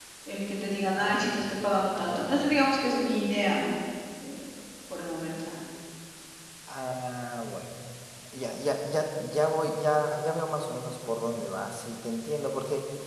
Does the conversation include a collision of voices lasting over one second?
No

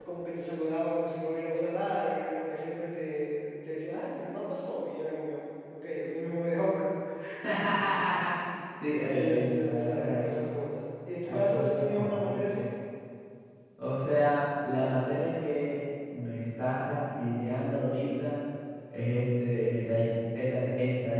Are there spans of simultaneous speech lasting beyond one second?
Yes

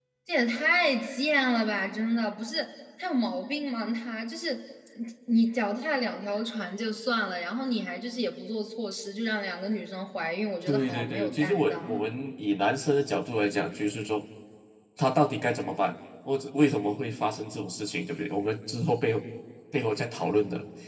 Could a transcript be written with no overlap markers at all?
No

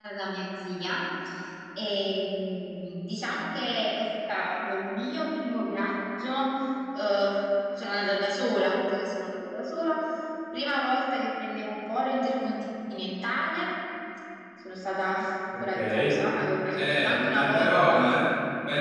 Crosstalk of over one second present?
Yes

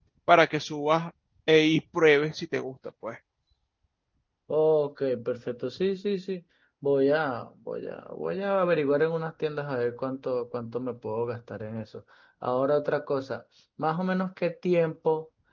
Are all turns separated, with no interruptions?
Yes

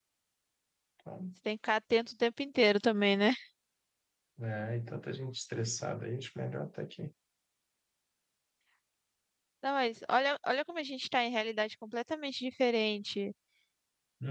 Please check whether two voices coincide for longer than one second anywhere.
No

